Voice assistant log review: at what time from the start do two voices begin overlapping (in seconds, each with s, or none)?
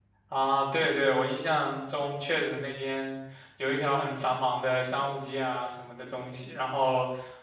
none